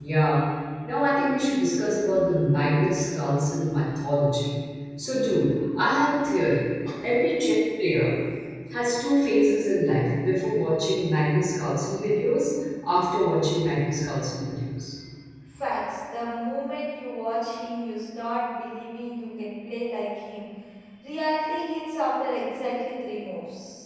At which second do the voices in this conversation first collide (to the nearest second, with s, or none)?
none